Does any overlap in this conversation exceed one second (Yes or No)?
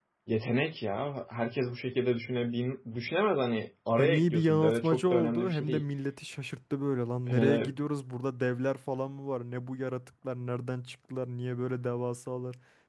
Yes